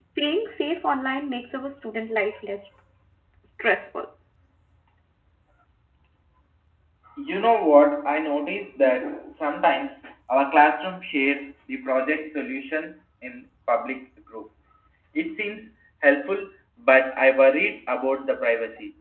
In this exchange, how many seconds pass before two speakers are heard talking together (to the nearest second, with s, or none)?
none